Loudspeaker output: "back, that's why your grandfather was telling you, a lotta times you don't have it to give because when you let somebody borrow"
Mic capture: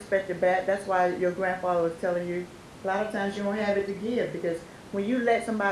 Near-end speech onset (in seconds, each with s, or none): none